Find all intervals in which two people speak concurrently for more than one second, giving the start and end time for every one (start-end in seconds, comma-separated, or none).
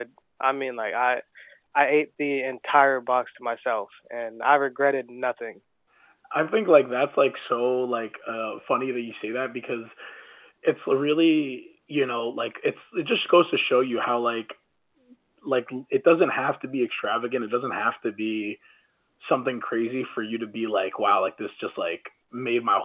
none